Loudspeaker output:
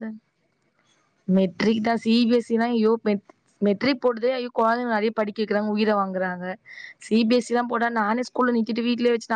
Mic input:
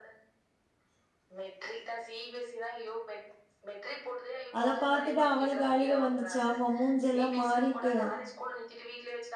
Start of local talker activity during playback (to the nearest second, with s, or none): 5 s